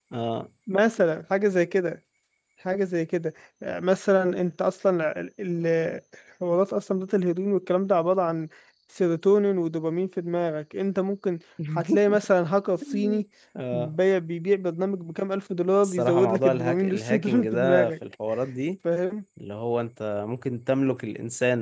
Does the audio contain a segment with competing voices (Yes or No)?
Yes